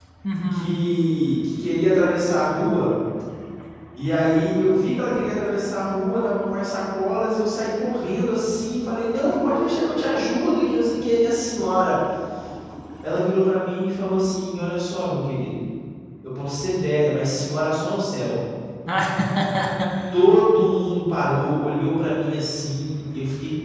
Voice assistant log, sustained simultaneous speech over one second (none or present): none